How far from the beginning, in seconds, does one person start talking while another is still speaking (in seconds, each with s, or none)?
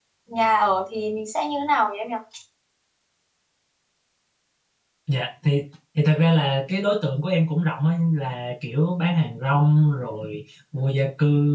none